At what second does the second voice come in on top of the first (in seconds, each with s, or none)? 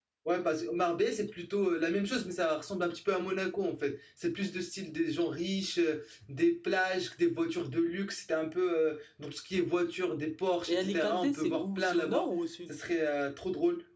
10.7 s